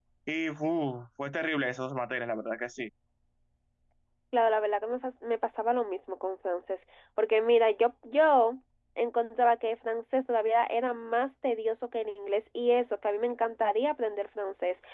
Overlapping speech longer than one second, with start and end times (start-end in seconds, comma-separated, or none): none